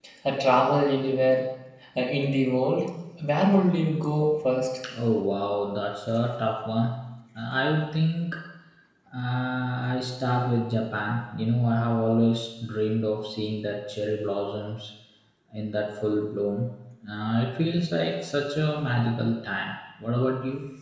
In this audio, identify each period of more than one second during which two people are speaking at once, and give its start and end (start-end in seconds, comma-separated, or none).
none